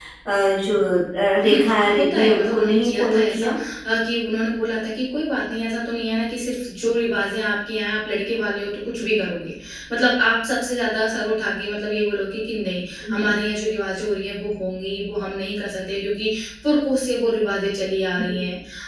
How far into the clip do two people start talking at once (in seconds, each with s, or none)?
1.5 s